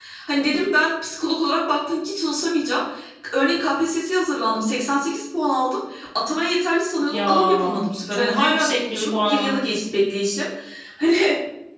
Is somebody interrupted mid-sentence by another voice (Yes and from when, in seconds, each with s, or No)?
Yes, from 7.1 s